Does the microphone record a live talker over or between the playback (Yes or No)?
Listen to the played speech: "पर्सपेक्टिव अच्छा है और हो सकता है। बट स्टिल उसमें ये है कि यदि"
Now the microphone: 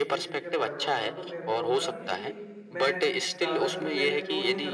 Yes